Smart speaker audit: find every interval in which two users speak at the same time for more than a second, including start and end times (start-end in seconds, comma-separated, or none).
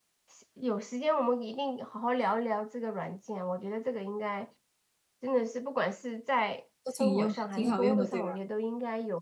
6.9-8.4